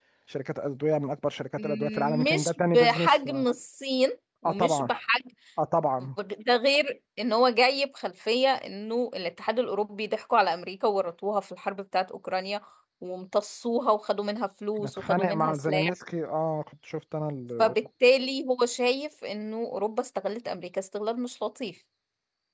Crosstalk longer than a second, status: present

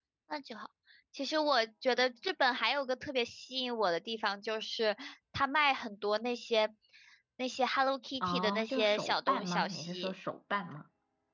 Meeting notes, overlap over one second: present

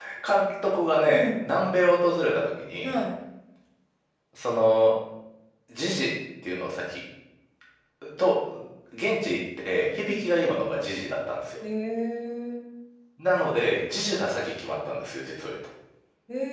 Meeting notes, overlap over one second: none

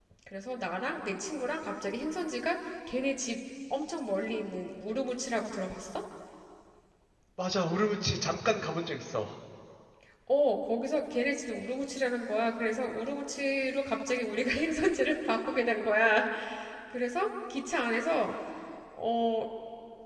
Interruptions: none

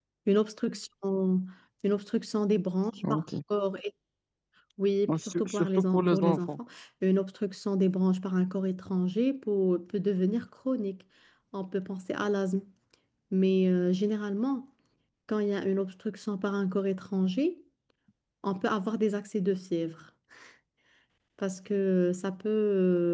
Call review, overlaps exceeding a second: present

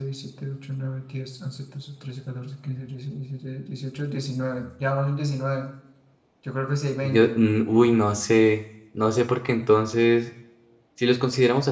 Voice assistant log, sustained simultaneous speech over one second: none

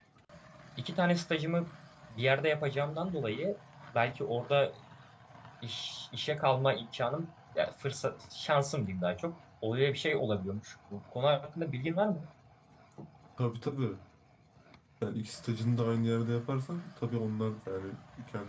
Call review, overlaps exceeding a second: none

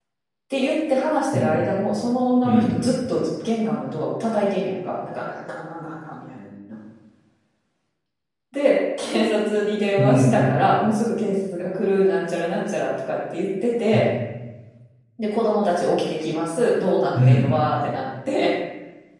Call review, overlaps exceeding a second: none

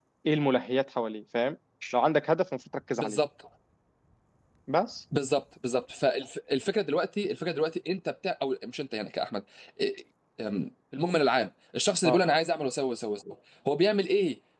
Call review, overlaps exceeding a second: none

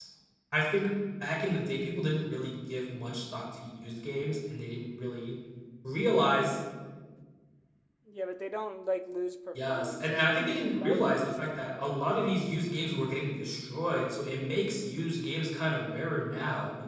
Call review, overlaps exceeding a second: present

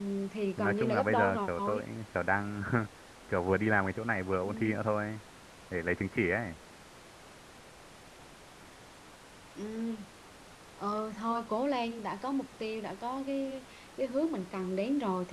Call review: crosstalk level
present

